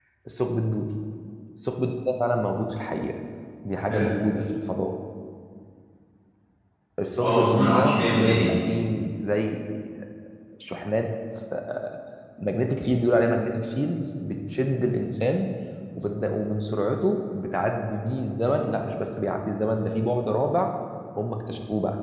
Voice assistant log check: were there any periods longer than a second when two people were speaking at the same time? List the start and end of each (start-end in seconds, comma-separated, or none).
7.2-8.5